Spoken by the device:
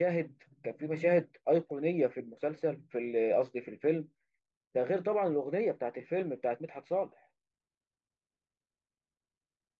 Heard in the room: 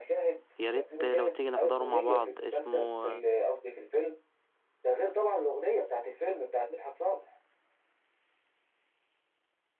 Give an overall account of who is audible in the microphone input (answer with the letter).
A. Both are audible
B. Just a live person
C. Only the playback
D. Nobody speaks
A